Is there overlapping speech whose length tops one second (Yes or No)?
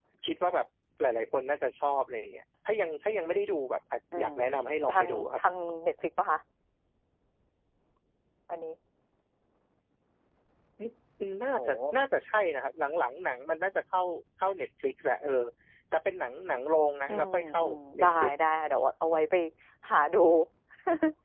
Yes